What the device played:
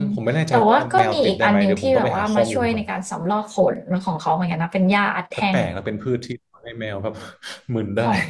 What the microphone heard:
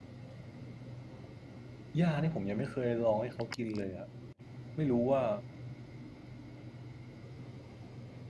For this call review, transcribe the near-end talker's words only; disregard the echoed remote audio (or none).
หญ้านี่ผมยังไม่เคยลองให้เขากินเลยอะไม่รู้ว่า